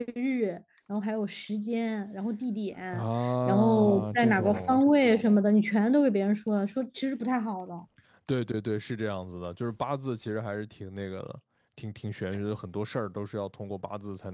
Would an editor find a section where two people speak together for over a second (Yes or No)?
Yes